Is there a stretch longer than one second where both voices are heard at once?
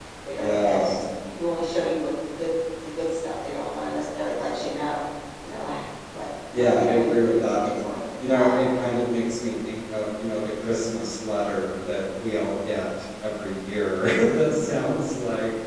Yes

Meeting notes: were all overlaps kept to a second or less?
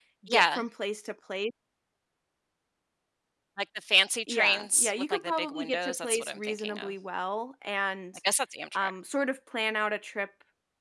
No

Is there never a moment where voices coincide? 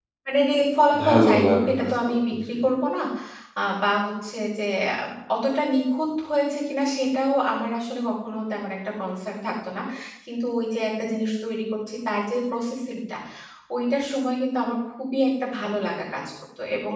No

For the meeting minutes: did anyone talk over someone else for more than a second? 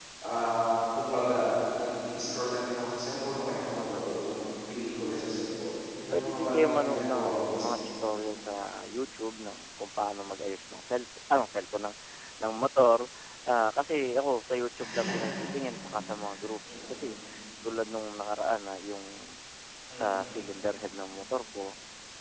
Yes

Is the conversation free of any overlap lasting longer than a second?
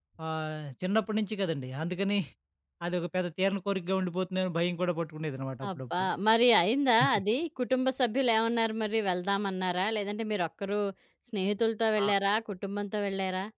Yes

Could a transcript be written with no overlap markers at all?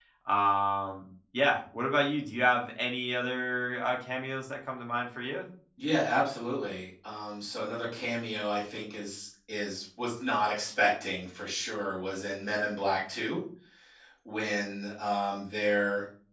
Yes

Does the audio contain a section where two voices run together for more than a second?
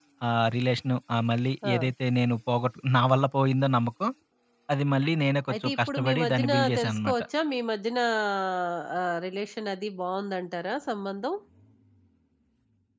Yes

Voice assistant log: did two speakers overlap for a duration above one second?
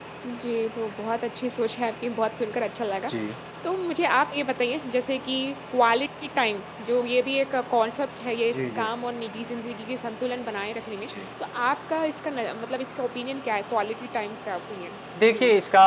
No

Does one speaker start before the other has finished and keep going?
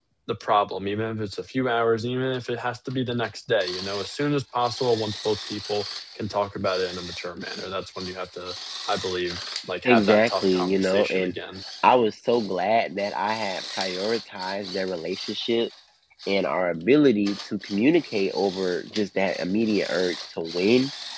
Yes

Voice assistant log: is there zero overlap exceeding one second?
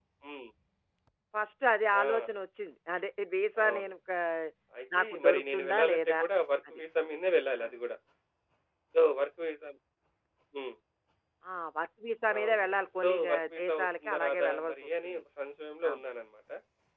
No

